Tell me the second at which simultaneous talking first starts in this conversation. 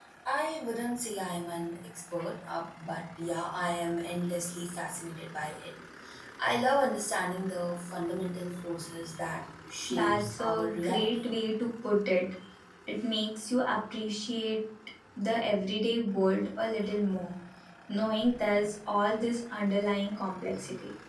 10 s

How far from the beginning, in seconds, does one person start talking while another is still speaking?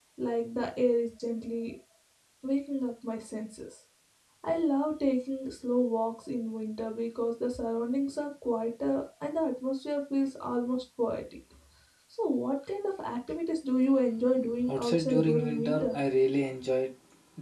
15 s

